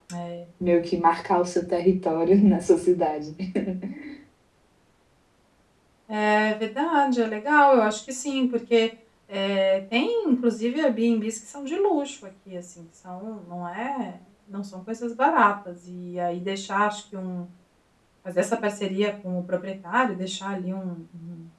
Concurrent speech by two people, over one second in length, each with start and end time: none

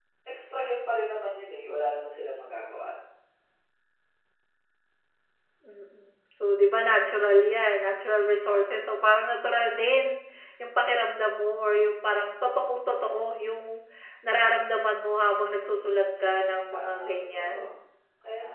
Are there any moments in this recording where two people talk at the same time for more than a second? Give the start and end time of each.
16.2-17.6

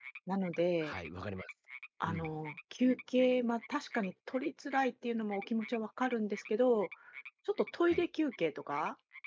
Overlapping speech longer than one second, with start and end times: none

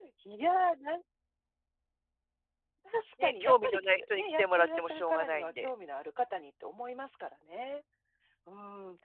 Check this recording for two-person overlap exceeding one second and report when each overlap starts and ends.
3.2-5.7

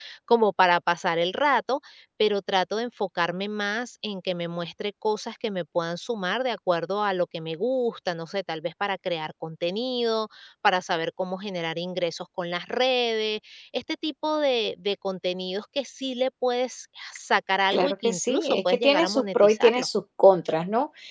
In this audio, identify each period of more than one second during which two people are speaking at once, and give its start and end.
17.7-19.9

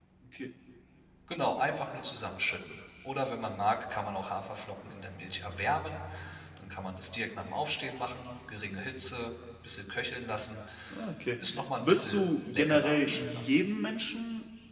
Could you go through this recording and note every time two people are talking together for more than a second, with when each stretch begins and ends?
11.8-13.4

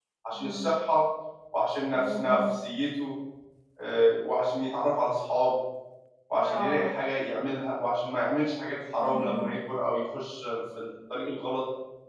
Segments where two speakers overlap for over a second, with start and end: none

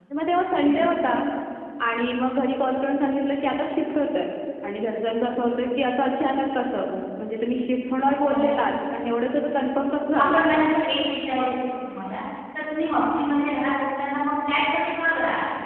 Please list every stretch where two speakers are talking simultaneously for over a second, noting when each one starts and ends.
none

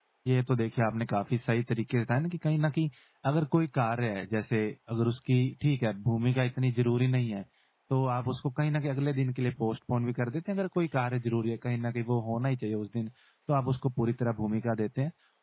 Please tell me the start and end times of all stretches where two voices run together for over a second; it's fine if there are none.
none

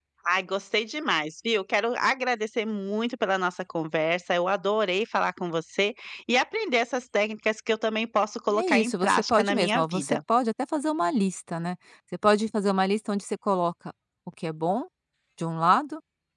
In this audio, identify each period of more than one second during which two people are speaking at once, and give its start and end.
8.5-10.2

